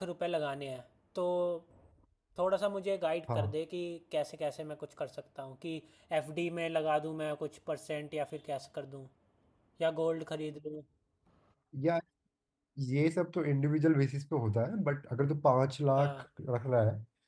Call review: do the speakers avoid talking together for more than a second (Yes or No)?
Yes